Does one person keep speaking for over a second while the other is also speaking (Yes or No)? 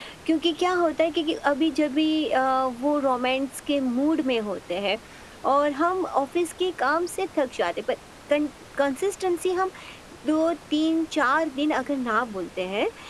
No